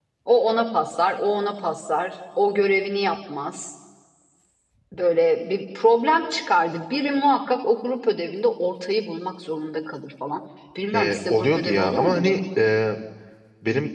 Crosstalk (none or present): present